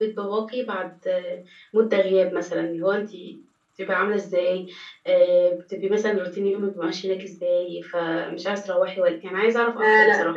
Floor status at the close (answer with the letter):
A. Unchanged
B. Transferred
B